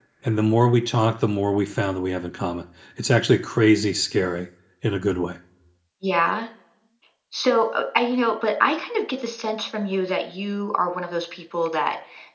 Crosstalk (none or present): none